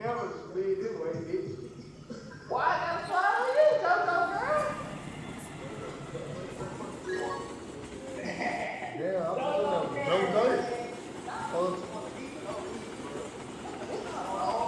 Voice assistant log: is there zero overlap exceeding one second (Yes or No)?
No